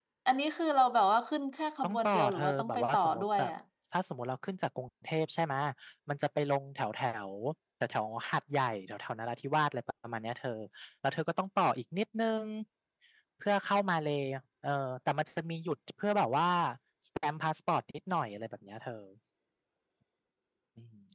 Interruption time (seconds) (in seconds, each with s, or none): 1.8 s